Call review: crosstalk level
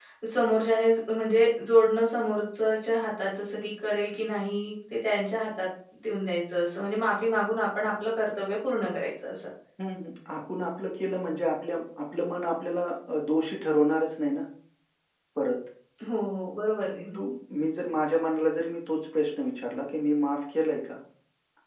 none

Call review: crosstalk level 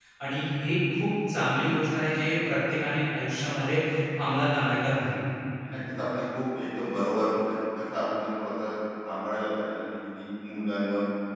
none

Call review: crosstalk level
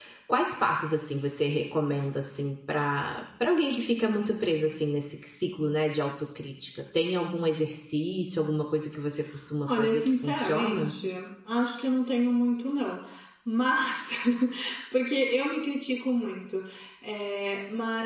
present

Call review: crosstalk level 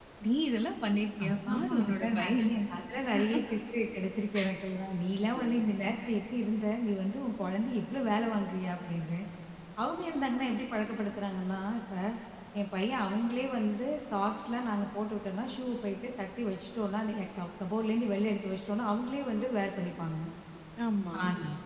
present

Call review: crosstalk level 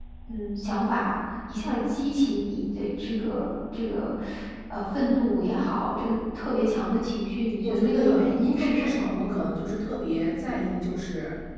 present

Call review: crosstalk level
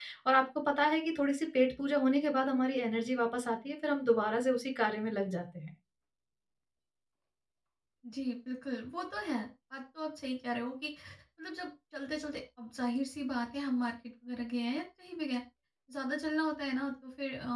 none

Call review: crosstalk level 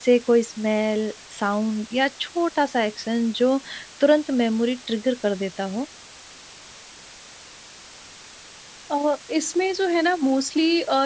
none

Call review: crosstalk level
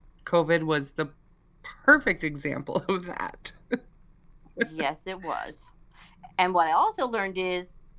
none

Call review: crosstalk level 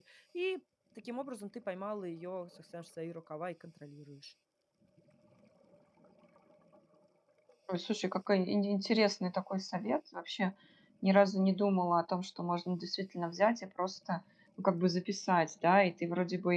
none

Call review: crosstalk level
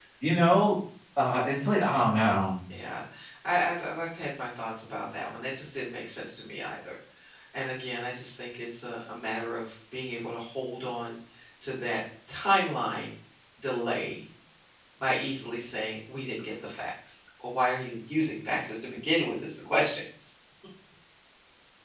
none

